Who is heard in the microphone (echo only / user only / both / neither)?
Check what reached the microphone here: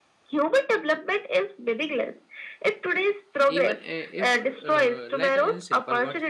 both